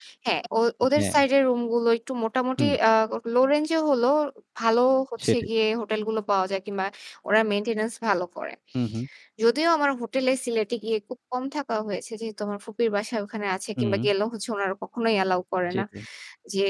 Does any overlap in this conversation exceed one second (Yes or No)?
No